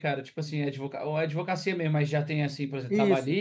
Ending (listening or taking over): taking over